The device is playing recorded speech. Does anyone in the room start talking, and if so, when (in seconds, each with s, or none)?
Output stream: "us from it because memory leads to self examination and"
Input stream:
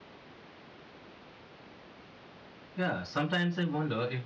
2.7 s